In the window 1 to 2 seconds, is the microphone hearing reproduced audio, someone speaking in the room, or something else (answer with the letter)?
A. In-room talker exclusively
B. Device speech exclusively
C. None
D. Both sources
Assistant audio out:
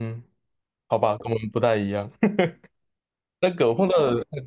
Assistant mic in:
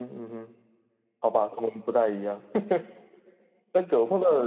B